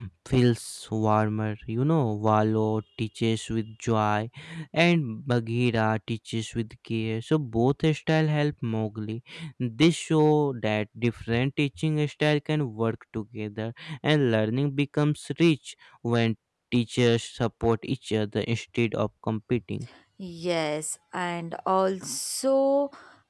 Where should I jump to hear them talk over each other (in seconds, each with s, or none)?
none